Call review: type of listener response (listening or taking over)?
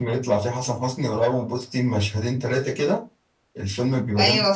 listening